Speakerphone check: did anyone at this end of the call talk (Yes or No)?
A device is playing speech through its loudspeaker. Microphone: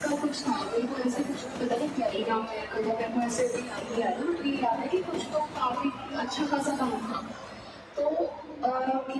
No